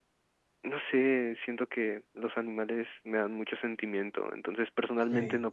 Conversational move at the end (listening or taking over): listening